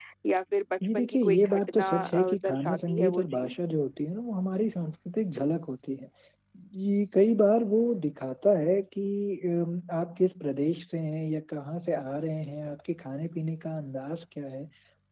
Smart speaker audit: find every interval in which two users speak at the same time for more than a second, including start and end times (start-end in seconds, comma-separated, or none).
0.8-3.6